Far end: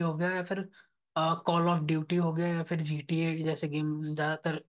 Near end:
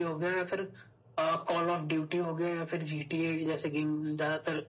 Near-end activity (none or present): none